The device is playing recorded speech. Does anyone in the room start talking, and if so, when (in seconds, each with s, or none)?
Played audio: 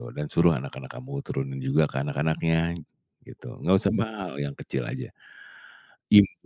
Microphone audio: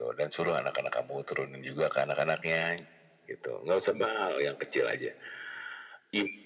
none